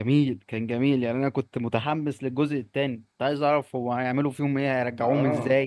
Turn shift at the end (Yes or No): Yes